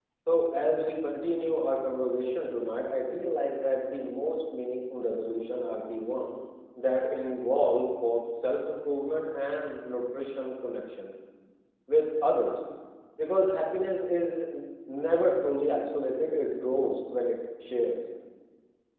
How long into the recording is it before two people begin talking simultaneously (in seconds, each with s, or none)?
none